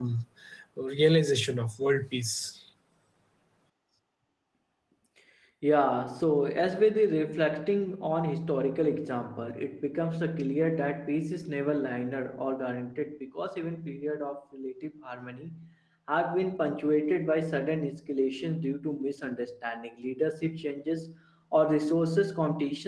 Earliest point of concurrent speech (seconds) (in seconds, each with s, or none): none